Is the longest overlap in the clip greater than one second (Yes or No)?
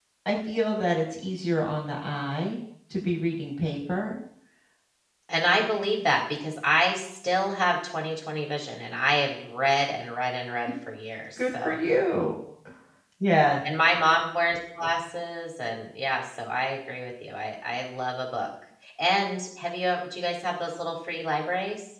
No